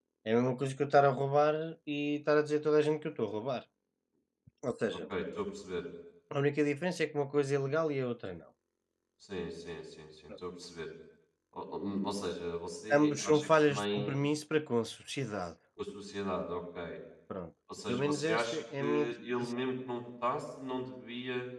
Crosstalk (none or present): present